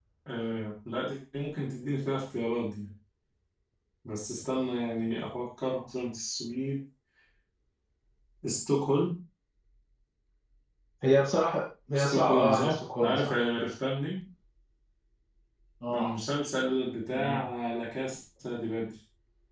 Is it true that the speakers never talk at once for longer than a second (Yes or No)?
No